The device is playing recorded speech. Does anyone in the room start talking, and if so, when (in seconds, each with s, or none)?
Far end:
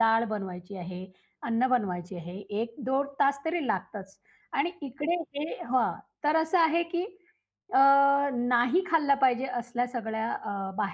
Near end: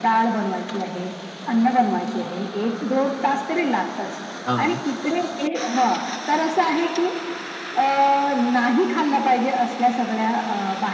4.5 s